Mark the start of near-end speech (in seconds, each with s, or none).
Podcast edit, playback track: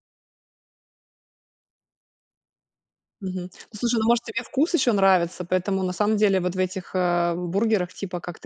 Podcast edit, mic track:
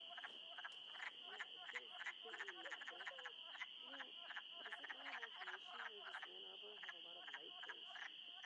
none